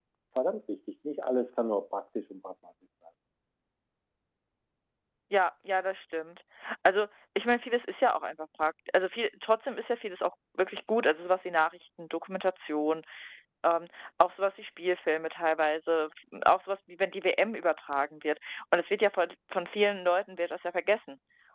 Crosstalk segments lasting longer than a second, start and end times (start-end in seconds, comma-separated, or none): none